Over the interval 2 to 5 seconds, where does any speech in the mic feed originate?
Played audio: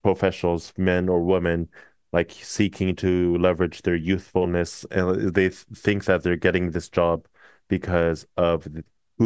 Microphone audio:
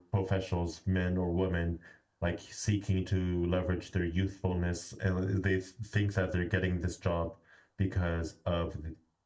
echo only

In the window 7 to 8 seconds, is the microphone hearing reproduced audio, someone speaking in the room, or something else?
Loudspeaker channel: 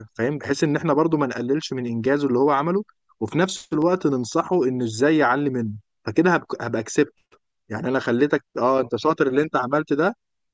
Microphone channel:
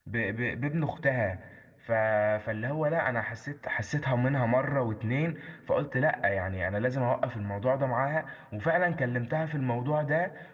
user only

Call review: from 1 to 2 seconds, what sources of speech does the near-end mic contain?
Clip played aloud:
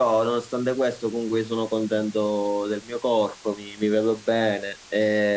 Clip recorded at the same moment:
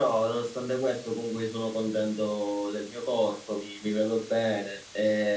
echo only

